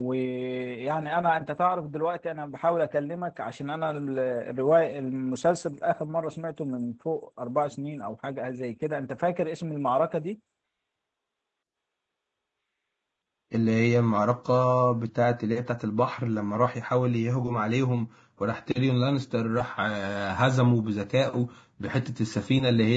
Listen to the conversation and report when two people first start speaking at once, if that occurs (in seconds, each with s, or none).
none